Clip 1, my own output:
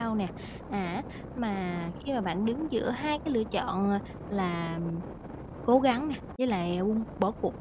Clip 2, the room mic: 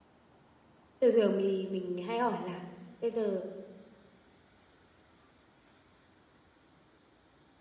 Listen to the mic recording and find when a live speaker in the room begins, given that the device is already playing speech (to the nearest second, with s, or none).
1 s